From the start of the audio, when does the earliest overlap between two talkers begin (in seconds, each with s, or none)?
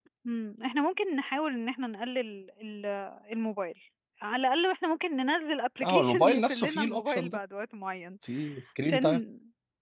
5.8 s